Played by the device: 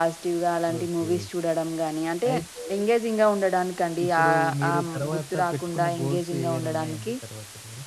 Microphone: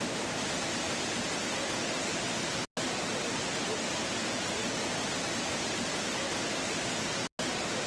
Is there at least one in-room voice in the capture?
No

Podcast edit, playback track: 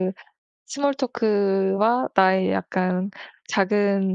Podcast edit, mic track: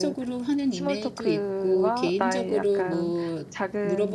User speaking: Yes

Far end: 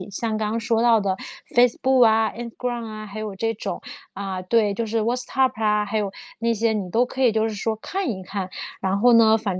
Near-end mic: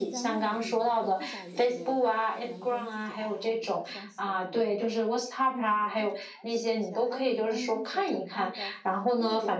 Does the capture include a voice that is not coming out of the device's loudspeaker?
Yes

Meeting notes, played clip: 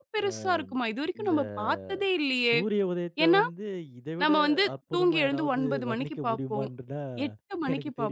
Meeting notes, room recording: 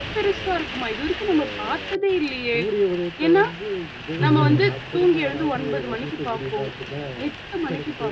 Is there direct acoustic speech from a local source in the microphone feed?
Yes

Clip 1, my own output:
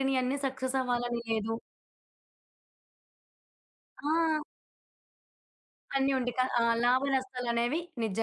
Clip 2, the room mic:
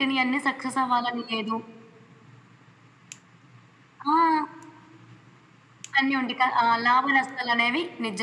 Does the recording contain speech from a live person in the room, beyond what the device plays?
No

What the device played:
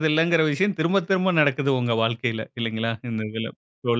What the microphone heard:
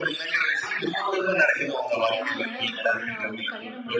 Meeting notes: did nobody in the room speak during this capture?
No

